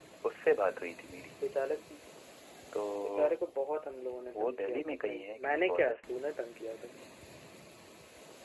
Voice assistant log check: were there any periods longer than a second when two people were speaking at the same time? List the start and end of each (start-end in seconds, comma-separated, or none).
4.3-6.2